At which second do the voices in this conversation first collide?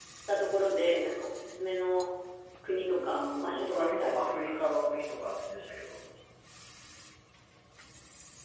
3 s

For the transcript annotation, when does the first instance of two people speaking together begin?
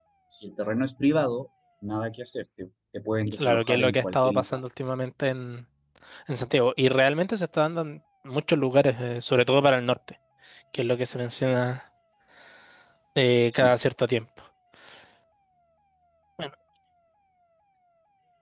3 s

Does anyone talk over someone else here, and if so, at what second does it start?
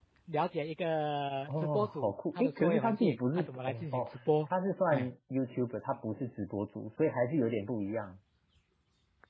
1 s

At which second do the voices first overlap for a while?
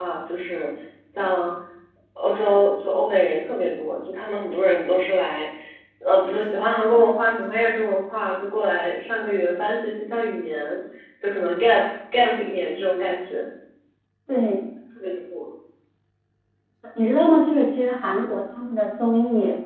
none

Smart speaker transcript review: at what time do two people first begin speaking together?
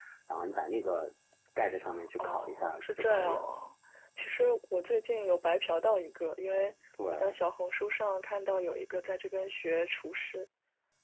2 s

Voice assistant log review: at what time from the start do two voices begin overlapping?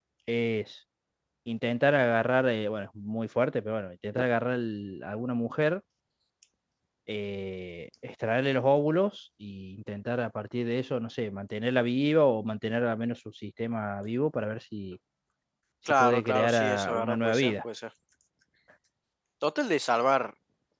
16 s

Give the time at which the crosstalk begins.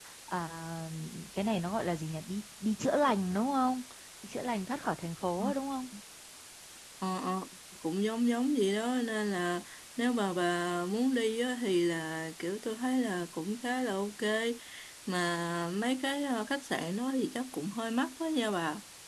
none

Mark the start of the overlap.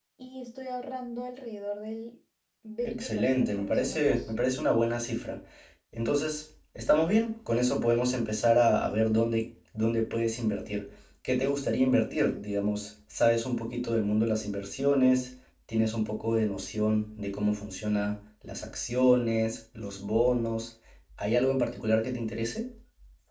3 s

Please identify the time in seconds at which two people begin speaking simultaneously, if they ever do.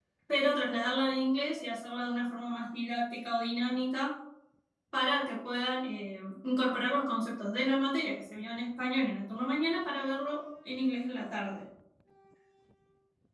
none

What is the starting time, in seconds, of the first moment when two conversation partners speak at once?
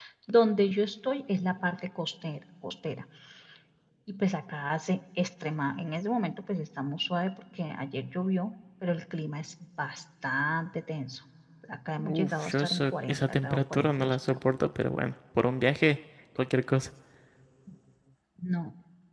12 s

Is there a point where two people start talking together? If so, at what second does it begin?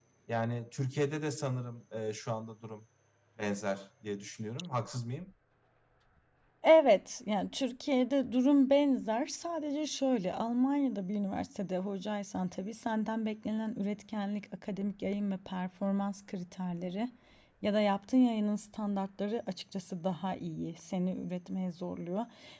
none

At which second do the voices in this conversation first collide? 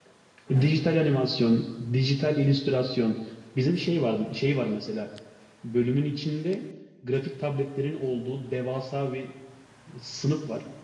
none

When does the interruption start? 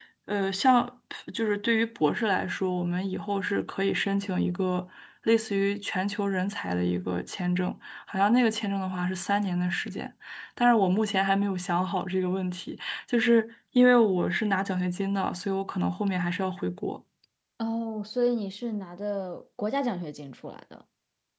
none

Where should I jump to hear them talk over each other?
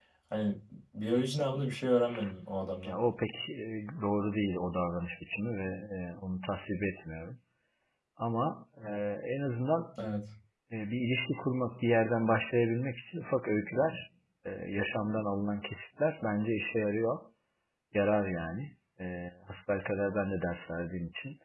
none

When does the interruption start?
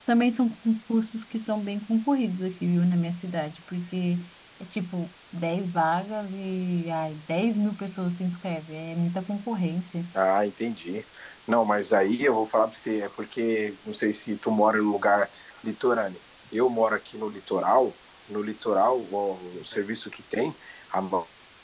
none

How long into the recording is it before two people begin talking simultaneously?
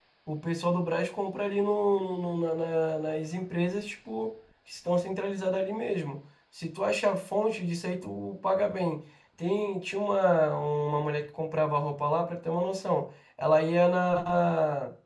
none

